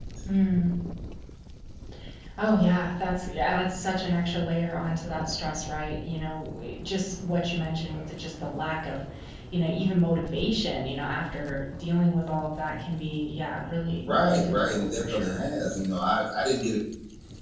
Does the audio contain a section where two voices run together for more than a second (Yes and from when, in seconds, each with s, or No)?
Yes, from 14.1 s